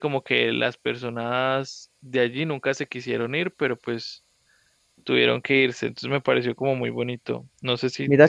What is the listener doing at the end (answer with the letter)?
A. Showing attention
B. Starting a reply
B